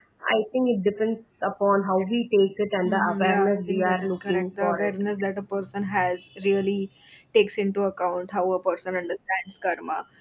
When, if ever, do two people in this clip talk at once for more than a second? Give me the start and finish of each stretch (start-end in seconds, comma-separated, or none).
2.8-4.9